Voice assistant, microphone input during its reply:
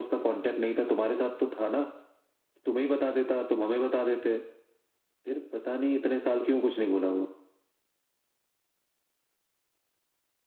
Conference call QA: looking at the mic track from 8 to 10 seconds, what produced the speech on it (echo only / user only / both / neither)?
neither